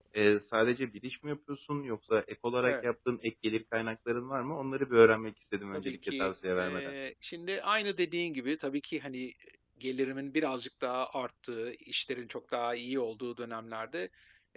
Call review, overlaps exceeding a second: present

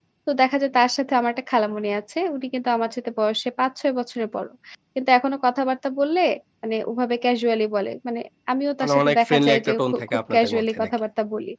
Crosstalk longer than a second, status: present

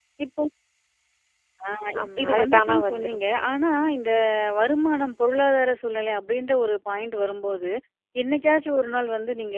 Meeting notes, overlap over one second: present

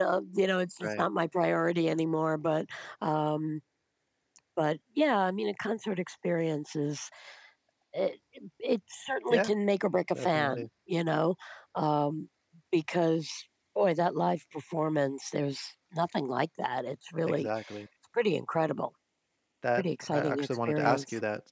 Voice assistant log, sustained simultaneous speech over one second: present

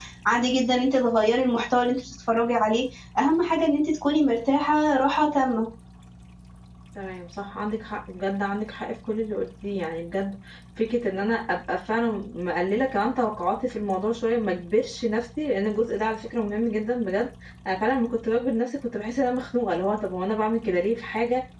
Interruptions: none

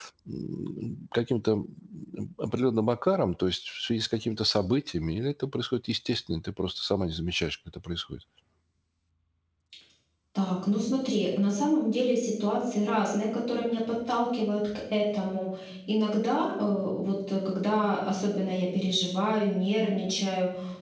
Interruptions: none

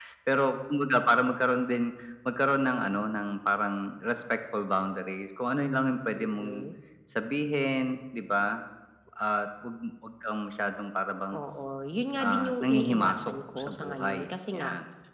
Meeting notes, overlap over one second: present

